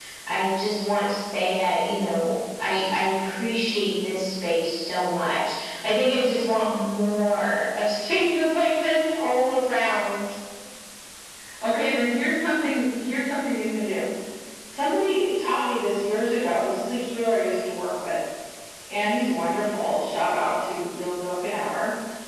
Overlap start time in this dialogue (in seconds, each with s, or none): none